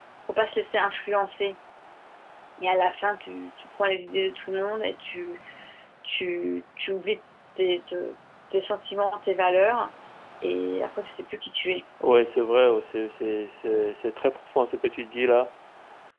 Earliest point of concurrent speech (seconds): none

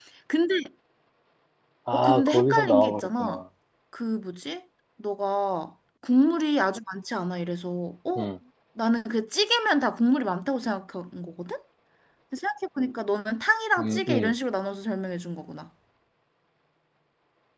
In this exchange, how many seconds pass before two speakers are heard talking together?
1.9 s

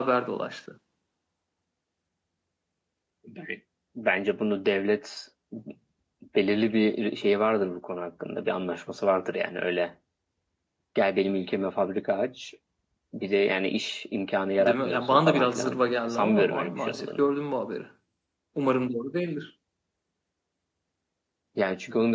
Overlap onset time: 14.6 s

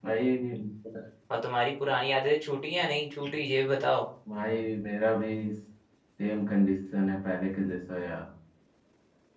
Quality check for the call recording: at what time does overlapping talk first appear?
none

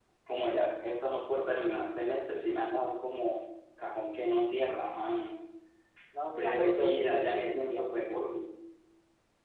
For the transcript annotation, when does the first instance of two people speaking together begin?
6.4 s

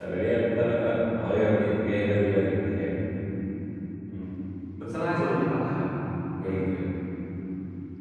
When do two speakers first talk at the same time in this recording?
none

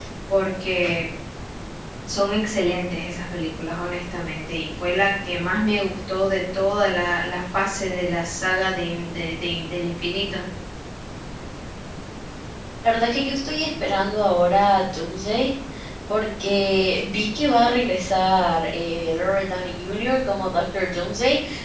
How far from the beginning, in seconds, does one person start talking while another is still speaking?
none

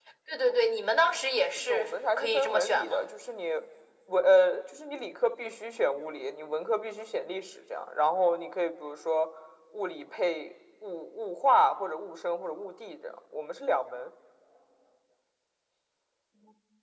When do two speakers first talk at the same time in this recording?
1.6 s

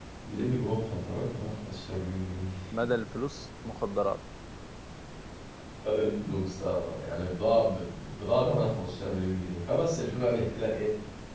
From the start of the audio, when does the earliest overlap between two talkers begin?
none

